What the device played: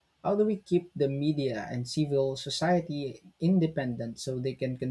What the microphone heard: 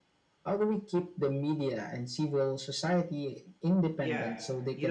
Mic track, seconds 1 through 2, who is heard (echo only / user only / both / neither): echo only